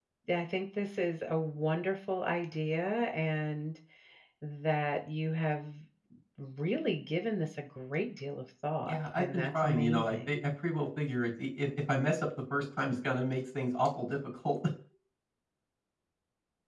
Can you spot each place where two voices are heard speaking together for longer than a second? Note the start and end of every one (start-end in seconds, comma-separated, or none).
8.8-10.4